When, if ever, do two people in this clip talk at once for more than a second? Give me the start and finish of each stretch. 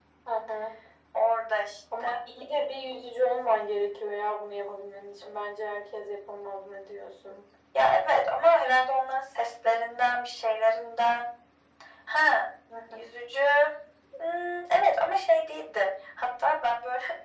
none

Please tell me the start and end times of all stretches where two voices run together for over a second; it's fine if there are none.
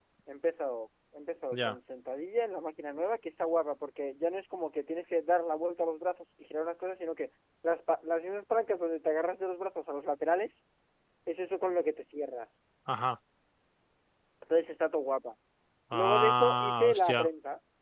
15.9-17.3

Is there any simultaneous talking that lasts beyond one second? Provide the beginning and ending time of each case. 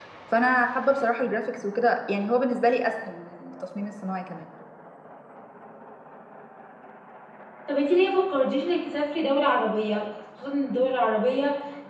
none

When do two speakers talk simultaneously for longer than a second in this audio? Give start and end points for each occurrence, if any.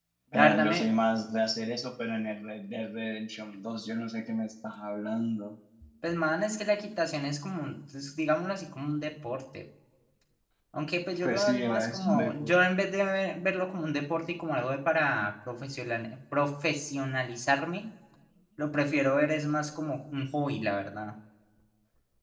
11.2-12.6

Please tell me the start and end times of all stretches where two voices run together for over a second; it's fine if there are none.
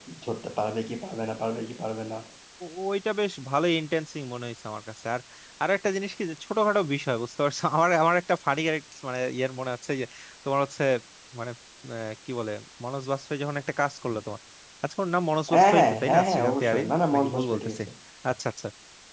15.5-17.8

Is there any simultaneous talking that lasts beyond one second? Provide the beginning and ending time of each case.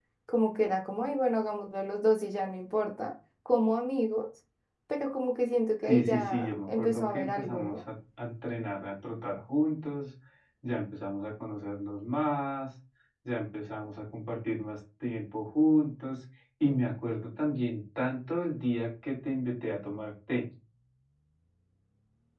5.8-7.8

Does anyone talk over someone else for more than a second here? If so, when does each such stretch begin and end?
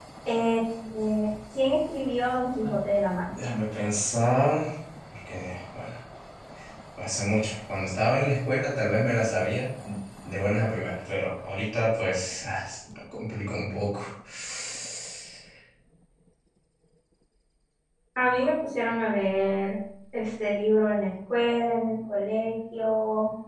none

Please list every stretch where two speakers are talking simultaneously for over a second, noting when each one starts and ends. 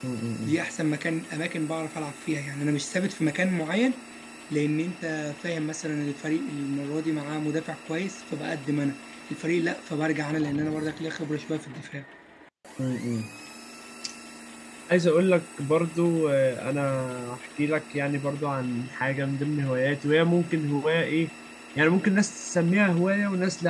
none

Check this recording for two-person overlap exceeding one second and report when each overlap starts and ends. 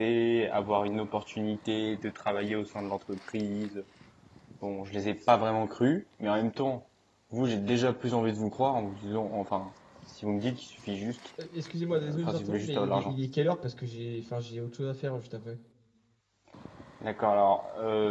11.9-13.1

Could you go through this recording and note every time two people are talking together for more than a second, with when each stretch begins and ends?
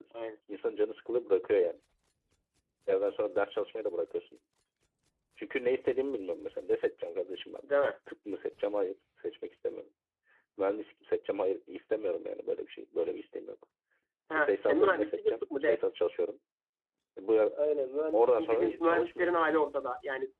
14.3-15.8, 18.1-19.5

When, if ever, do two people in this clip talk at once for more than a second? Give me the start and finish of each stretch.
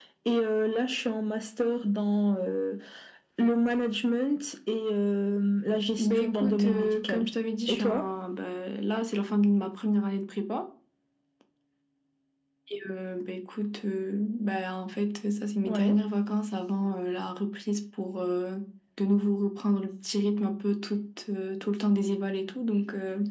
6.0-7.3

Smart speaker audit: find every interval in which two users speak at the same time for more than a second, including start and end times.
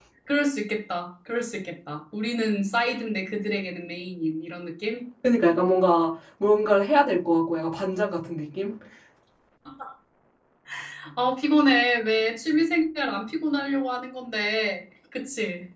none

